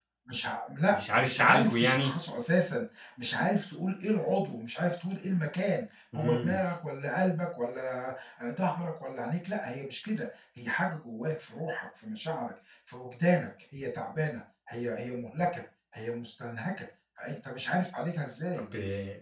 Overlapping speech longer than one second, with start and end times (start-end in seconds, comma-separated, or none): 0.9-2.1